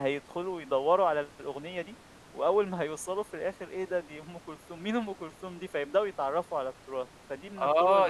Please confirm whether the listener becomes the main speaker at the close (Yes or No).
Yes